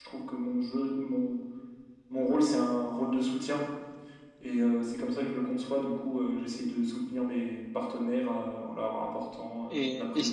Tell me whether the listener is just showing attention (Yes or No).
No